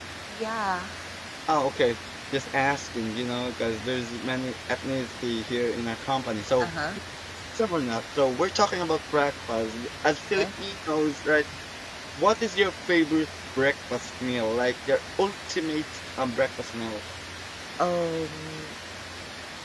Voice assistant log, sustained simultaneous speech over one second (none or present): none